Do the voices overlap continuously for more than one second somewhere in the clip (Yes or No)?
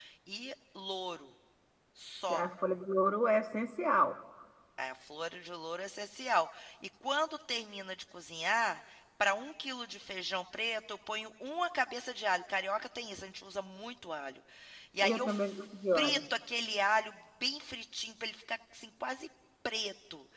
Yes